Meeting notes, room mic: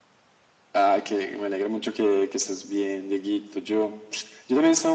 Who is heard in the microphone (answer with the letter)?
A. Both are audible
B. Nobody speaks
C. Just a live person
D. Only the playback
D